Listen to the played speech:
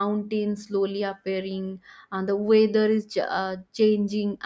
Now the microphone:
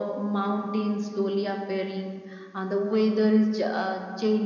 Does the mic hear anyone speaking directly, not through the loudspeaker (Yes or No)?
No